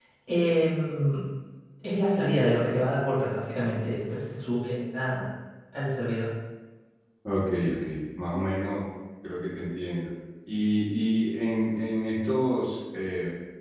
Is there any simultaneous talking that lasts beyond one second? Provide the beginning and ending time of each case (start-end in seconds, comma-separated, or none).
none